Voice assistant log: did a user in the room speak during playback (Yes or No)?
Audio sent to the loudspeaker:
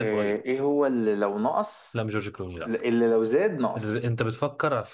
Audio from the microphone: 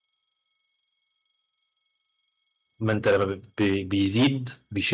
Yes